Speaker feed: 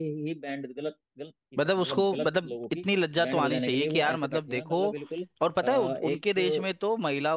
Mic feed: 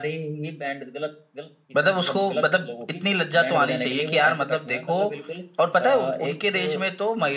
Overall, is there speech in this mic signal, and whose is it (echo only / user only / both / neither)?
echo only